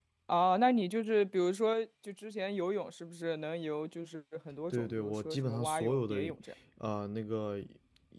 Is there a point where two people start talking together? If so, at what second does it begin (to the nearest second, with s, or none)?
5 s